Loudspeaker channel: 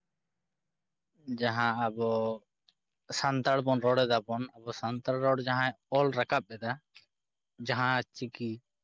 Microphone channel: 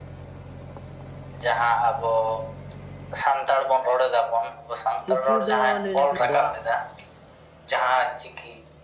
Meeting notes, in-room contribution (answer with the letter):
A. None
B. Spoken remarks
B